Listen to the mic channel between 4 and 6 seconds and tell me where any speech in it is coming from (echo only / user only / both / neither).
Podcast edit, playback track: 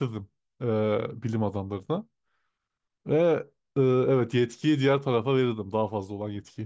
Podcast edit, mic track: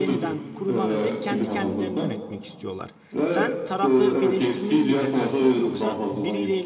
both